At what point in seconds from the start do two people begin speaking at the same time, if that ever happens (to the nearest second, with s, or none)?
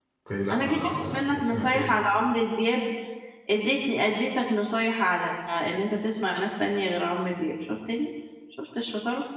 1 s